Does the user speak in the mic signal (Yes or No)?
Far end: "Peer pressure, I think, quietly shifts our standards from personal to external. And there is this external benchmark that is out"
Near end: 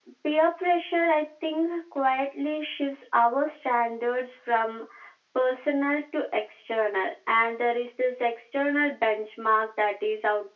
No